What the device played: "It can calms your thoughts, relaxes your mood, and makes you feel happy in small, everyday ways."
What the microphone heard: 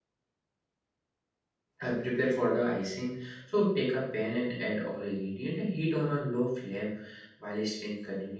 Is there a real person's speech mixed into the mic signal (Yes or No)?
Yes